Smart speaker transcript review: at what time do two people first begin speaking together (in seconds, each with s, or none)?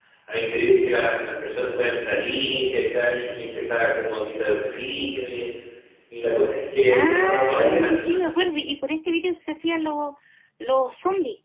6.9 s